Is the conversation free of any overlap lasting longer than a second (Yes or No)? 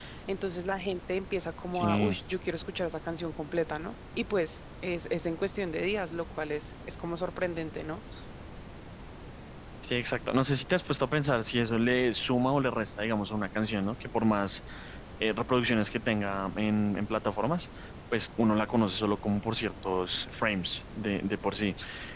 Yes